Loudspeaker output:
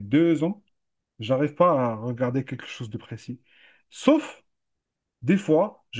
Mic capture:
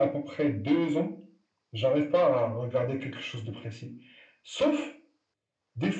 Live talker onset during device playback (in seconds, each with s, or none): none